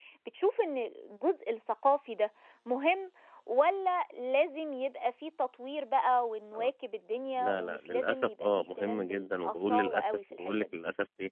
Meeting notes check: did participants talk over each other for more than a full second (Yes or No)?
Yes